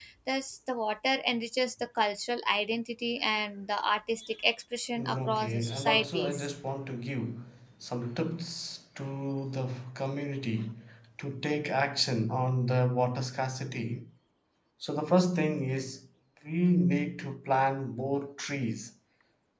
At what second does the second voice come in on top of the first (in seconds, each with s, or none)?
5.0 s